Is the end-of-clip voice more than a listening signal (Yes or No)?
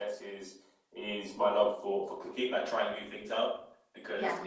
No